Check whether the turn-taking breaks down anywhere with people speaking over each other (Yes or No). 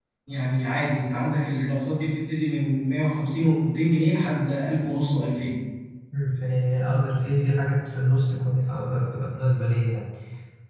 No